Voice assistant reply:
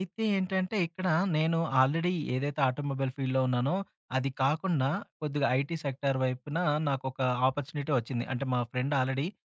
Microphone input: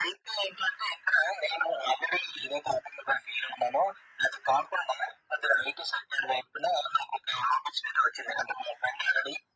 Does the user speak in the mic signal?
No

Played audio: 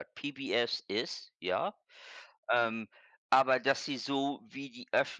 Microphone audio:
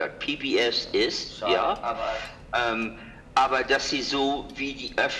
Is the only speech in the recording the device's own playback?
No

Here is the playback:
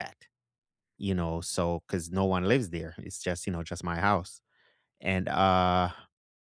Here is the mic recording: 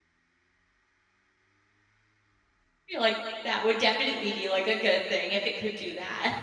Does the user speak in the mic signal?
Yes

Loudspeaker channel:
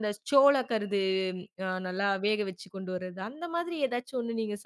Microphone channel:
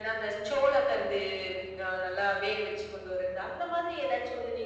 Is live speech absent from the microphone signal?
Yes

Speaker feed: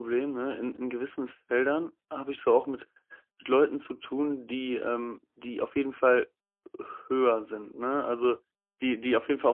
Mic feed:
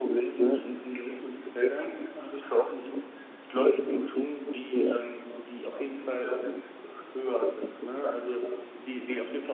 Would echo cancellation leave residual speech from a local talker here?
No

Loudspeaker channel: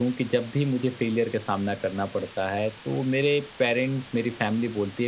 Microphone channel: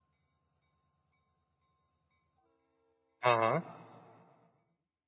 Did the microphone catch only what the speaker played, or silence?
No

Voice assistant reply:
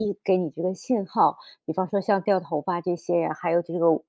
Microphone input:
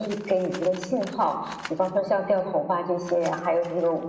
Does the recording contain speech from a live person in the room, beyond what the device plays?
No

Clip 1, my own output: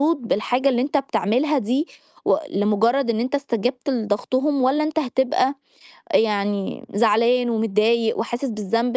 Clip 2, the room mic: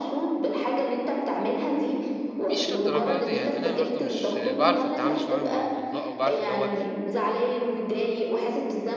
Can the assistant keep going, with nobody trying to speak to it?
No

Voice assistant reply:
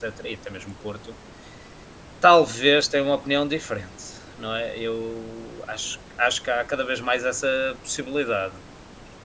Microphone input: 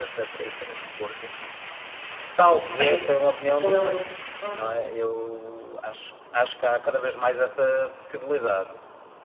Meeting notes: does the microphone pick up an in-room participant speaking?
Yes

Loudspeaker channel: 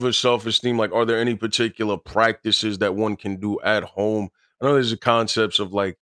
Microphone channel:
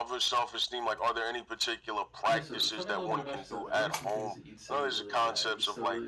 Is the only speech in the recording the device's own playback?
No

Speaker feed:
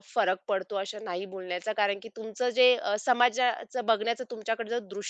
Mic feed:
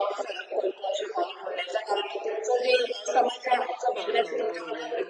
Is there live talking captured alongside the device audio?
Yes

